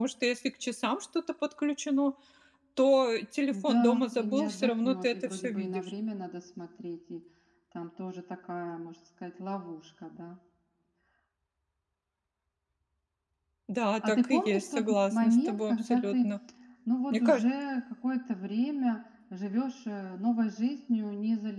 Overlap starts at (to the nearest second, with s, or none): 4 s